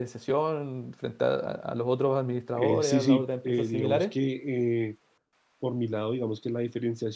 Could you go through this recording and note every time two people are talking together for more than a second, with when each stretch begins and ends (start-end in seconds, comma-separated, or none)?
2.5-4.1